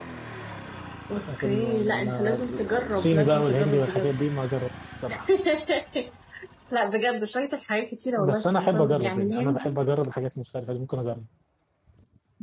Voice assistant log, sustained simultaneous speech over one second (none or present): present